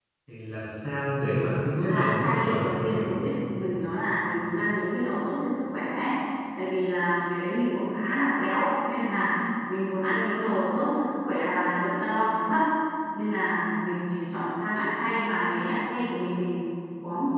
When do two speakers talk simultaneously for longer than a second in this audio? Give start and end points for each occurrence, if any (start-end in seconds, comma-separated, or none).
1.8-3.1